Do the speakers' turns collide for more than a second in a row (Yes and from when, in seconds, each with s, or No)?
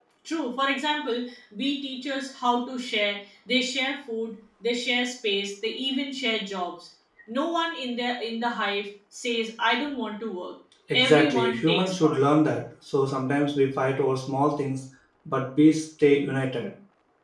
Yes, from 10.9 s